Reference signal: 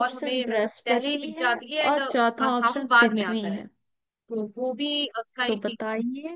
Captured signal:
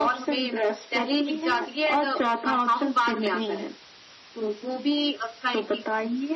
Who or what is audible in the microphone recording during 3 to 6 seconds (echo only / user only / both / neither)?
echo only